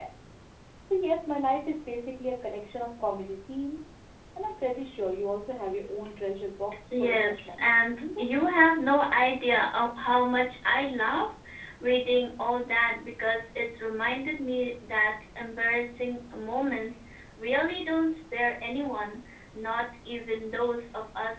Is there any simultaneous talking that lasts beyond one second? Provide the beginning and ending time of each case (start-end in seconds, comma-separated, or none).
7.0-8.4